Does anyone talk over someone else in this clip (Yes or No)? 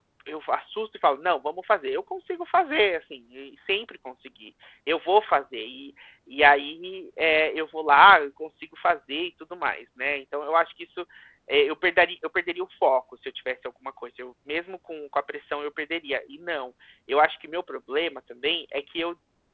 No